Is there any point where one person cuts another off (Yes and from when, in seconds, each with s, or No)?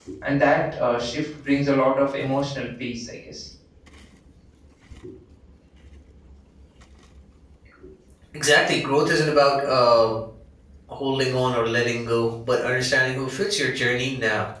No